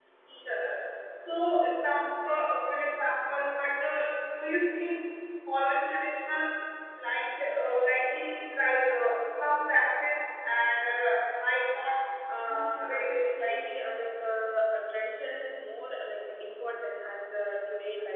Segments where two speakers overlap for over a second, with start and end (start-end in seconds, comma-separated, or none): 12.3-13.7